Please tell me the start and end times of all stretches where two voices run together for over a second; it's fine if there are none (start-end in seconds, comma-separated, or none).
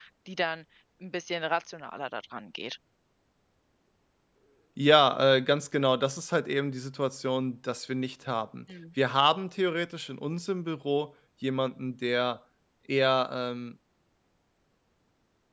none